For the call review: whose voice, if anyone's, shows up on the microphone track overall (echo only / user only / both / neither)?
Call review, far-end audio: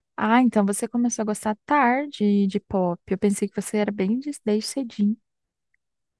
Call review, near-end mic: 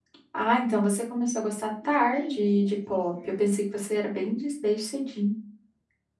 both